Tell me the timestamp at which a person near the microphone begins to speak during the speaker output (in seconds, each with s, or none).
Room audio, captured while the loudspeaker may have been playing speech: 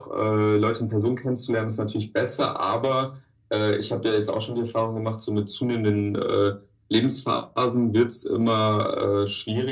none